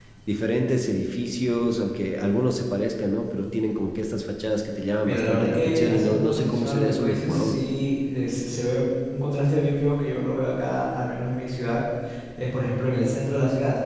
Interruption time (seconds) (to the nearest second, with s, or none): 5 s